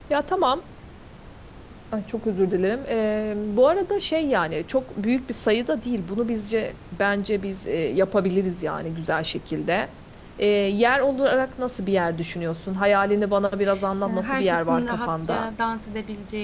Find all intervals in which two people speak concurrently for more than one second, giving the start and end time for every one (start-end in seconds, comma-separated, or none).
14.1-15.5